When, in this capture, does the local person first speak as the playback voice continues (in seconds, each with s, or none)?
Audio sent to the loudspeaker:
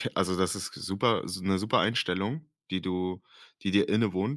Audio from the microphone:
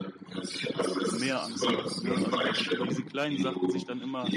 1.1 s